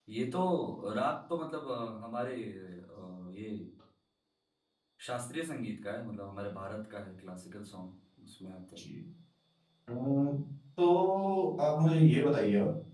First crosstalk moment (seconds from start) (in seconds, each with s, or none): none